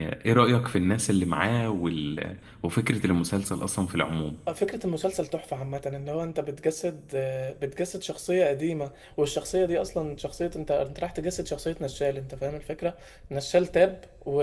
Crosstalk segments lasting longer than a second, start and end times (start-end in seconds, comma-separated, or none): none